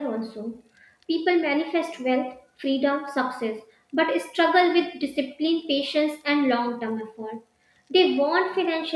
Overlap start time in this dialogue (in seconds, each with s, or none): none